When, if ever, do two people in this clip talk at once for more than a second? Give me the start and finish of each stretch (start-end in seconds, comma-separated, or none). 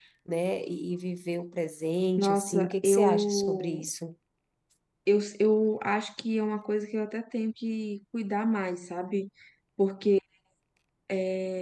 2.2-3.8